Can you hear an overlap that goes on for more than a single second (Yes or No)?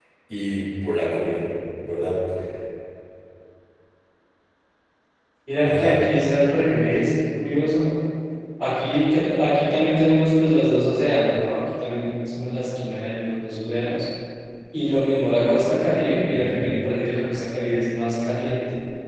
No